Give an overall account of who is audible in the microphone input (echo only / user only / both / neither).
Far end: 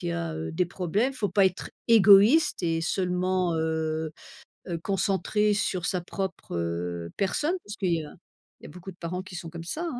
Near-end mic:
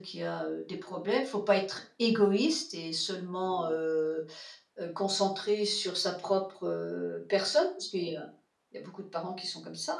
echo only